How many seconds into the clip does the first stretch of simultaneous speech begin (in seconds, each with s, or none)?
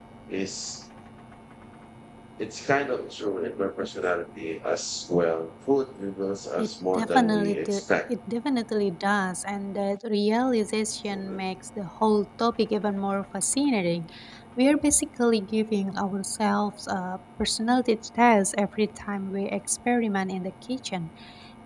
6.6 s